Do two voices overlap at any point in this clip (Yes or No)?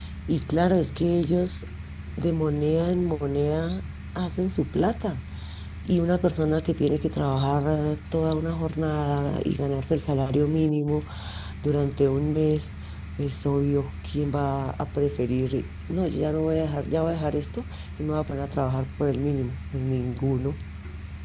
No